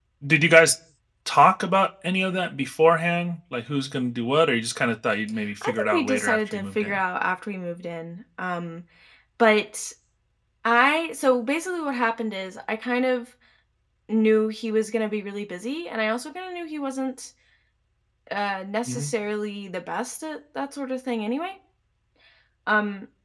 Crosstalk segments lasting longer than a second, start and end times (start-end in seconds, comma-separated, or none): 5.6-7.0